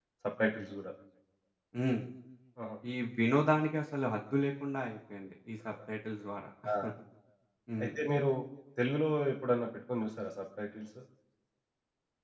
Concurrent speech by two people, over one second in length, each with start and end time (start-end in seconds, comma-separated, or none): none